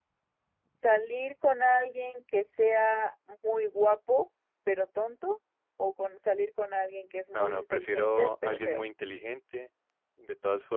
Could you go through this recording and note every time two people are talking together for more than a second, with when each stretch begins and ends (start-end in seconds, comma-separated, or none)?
7.3-8.8